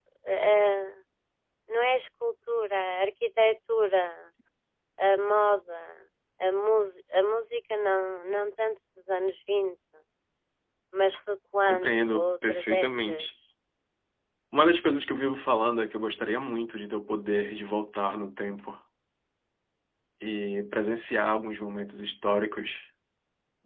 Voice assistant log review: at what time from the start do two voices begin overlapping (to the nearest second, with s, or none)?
12 s